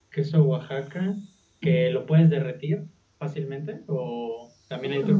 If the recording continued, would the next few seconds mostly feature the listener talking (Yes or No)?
No